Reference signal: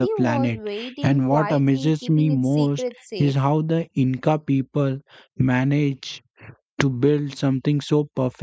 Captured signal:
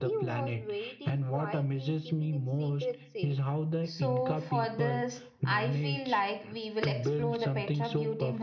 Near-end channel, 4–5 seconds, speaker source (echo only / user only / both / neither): both